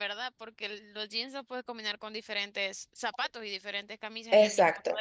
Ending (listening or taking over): taking over